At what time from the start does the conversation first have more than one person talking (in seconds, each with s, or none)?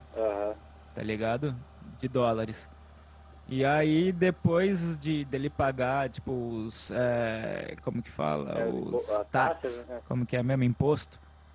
8.6 s